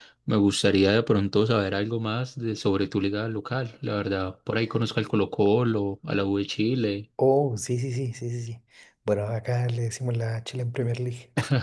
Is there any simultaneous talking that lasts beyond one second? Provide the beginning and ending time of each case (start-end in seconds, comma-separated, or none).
none